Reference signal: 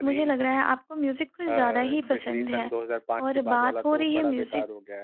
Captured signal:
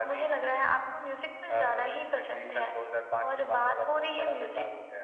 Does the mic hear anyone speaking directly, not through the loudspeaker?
No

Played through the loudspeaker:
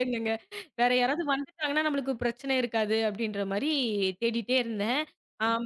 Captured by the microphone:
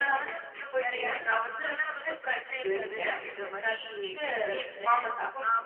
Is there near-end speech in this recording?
Yes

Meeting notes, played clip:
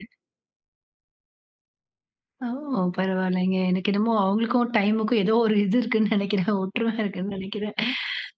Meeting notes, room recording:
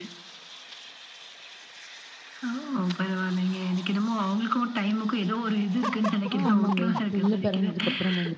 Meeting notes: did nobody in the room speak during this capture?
No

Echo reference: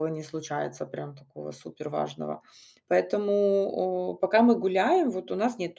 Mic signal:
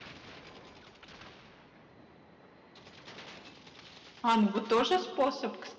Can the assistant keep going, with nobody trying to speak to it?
No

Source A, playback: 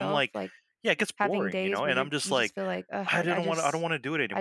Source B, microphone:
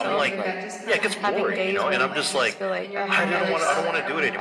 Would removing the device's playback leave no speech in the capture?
No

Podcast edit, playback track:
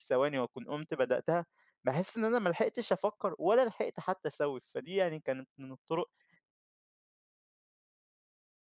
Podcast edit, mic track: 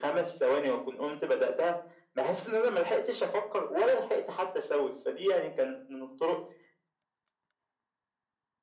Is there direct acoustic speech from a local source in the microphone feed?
No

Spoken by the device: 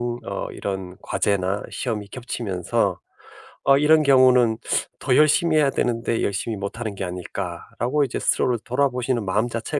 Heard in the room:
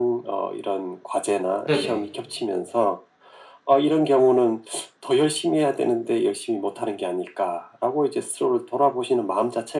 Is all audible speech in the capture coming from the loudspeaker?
No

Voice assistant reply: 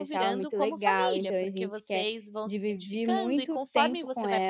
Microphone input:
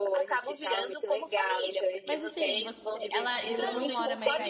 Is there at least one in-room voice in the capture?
Yes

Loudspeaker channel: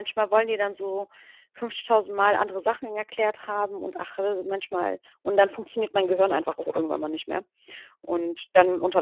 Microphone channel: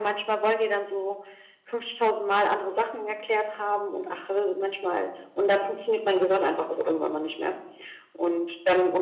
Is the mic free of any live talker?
Yes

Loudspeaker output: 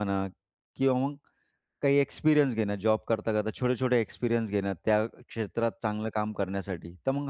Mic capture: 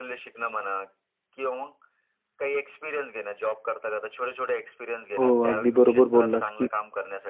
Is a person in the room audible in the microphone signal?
Yes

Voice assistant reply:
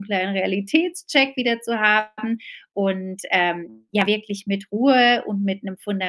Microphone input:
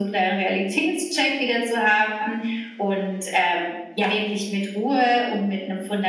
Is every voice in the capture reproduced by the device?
Yes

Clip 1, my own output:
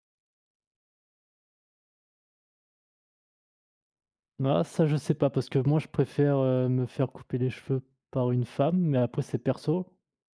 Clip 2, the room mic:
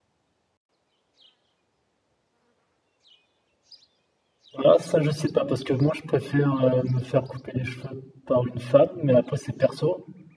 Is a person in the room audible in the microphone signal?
No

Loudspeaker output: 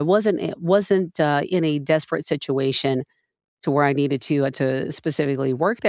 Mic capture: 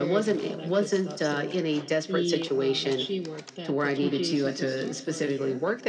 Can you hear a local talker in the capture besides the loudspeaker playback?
Yes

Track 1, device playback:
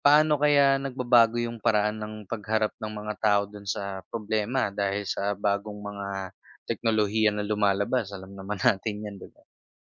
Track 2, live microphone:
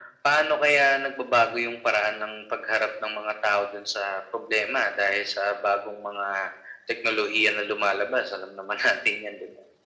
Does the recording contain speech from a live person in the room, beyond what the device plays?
No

